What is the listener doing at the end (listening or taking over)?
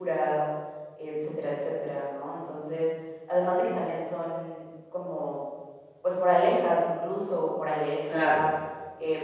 listening